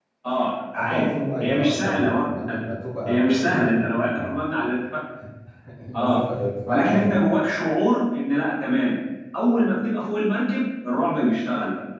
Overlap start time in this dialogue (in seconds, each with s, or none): 0.8 s